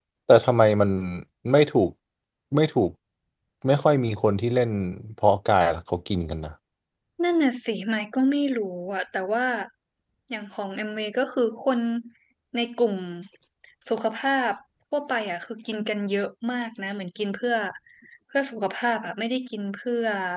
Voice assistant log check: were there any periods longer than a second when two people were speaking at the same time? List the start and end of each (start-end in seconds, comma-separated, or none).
none